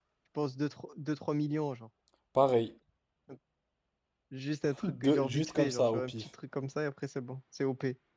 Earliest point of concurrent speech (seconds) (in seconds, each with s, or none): 4.8 s